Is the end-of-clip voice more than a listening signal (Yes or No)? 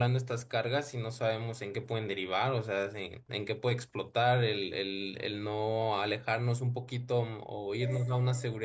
No